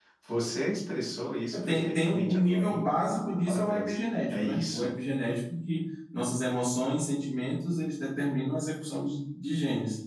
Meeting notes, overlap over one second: present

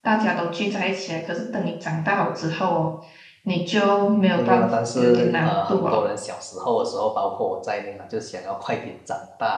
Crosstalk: present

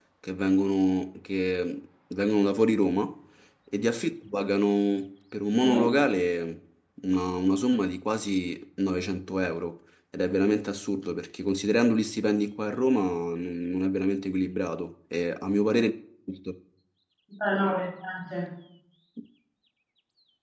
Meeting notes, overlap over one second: none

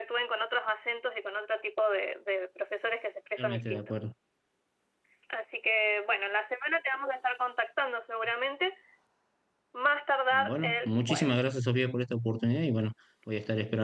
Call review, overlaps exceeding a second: present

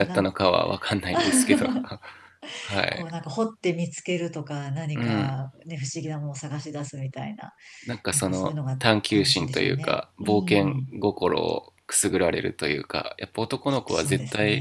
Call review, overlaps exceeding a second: present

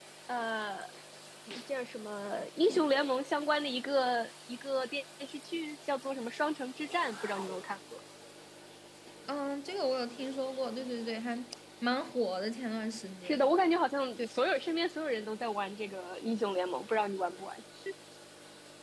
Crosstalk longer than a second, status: none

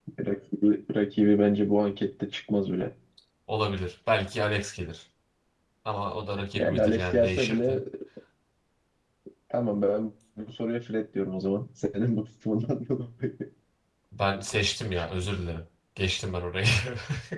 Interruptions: present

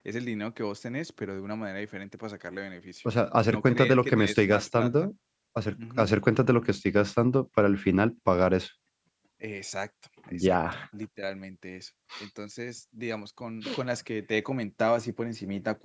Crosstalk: present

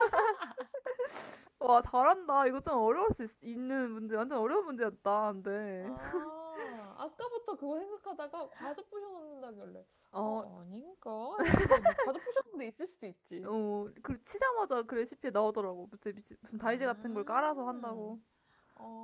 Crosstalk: present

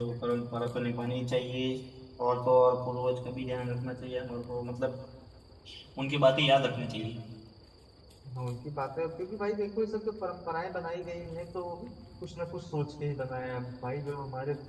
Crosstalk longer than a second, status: none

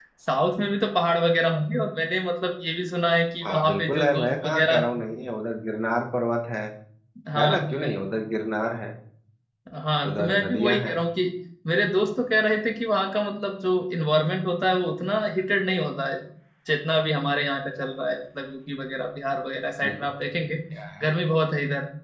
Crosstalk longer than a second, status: present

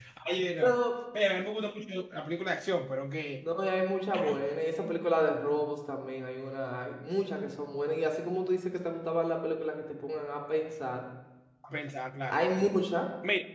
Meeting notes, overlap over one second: none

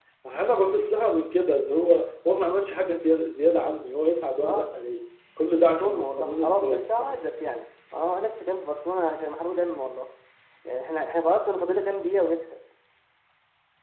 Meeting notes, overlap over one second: present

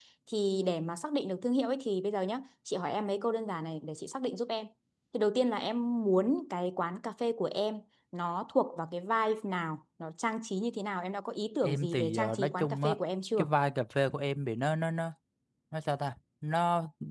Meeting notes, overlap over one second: present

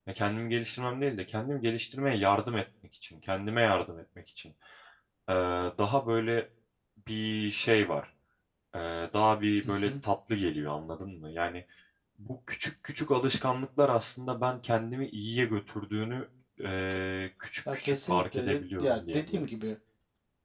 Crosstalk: present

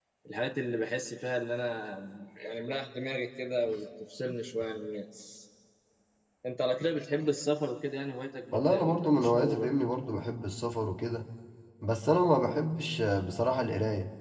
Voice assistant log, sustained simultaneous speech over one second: present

